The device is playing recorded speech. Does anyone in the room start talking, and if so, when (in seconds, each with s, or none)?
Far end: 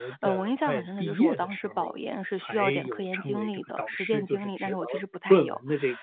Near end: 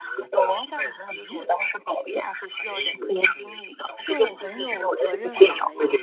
4.0 s